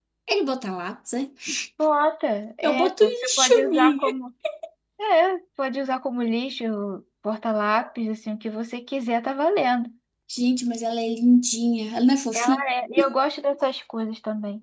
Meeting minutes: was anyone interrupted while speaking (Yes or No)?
Yes